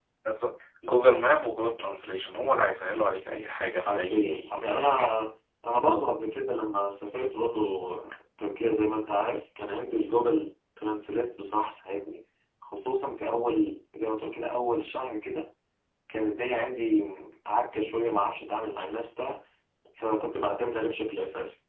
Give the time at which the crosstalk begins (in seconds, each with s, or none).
3.8 s